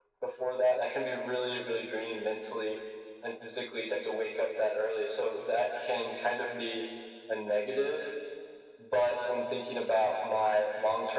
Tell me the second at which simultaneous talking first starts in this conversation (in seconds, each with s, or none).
none